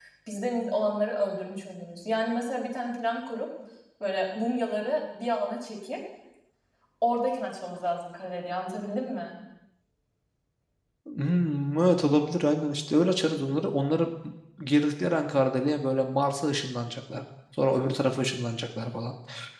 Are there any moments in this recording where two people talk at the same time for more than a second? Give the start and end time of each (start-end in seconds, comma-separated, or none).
none